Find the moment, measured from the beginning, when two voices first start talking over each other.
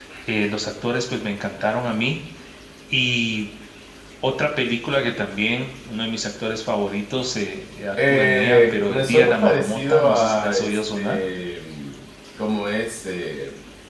8.0 s

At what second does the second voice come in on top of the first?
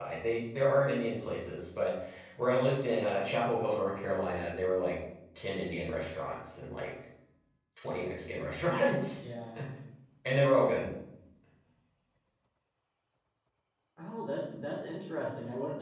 none

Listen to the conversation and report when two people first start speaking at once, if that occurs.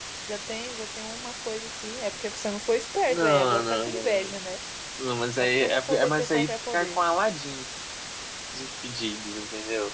3.1 s

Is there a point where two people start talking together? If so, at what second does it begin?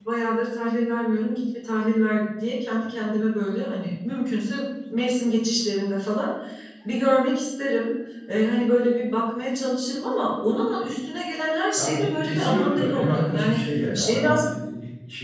11.8 s

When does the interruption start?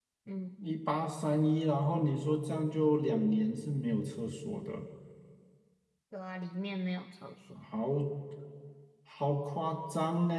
none

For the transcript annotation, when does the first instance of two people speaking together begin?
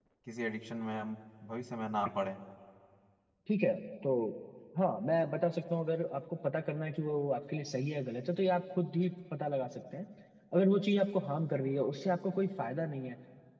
none

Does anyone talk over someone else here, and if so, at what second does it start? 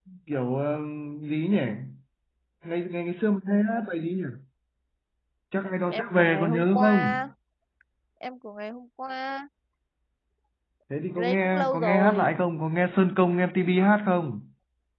5.9 s

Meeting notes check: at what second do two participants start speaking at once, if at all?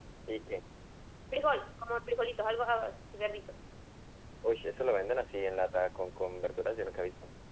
none

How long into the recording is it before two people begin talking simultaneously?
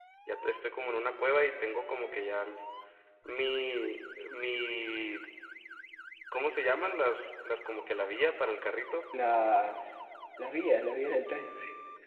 none

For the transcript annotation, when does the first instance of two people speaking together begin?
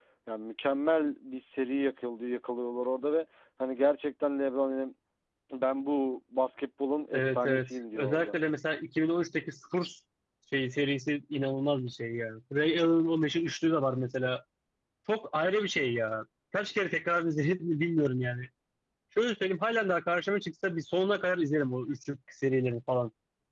7.1 s

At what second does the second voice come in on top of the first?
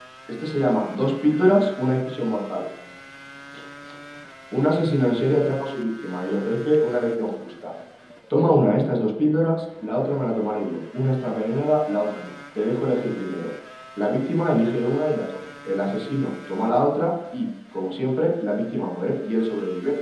none

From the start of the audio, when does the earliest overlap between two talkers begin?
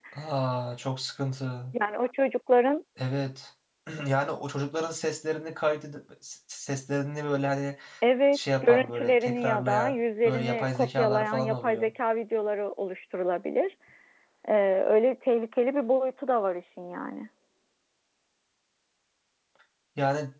8.3 s

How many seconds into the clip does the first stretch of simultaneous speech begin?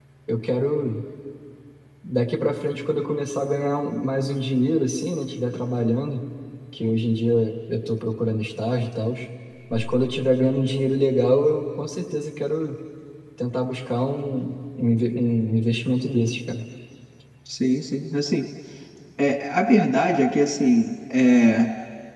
none

